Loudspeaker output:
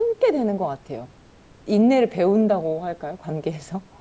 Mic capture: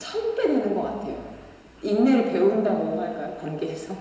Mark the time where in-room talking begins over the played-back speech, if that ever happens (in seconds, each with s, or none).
none